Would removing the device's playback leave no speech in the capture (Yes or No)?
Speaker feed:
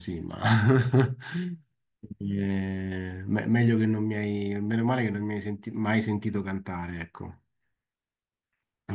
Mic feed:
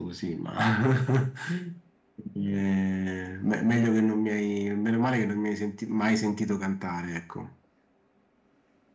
Yes